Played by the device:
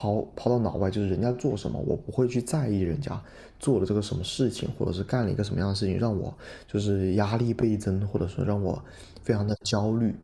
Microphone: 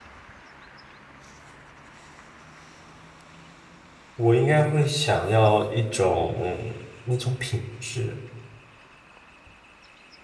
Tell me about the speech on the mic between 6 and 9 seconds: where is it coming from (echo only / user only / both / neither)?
user only